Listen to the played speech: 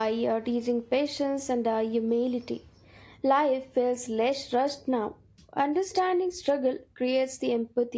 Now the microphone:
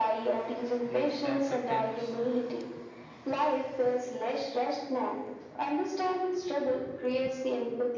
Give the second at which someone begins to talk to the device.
0.8 s

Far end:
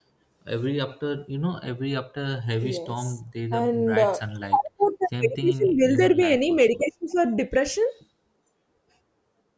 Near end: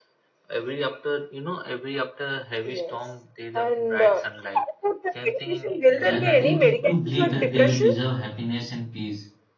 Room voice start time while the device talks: 6.1 s

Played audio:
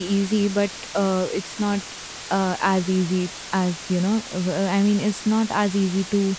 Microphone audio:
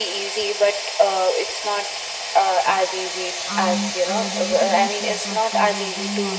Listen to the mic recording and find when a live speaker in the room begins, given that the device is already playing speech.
3.5 s

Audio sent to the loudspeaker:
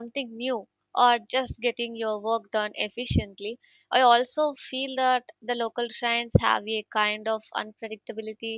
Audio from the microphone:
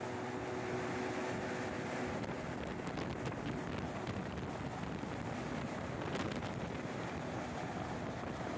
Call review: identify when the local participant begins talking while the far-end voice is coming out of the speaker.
none

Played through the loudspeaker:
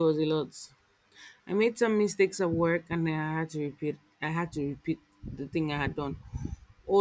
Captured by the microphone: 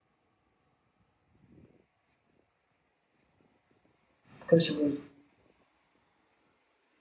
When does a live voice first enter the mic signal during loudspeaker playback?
4.4 s

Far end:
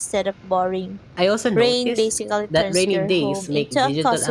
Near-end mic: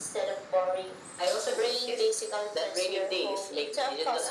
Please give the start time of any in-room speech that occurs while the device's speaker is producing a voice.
none

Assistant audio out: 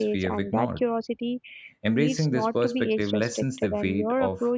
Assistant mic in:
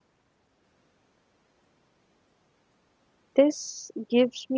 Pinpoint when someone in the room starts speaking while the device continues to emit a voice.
3.4 s

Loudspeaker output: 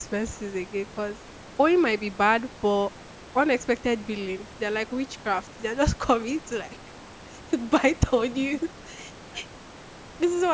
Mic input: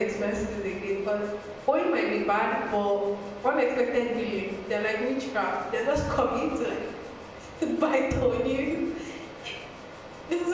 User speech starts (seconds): none

